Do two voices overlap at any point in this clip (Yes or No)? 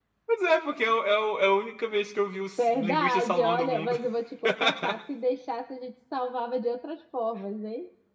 Yes